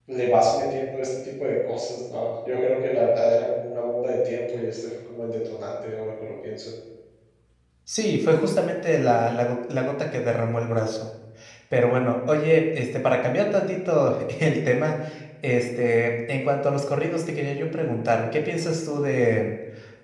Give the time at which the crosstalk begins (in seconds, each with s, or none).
none